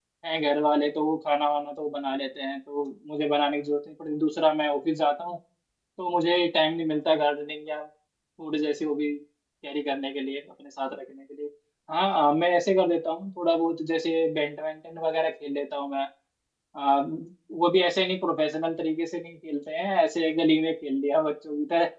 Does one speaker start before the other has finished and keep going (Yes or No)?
No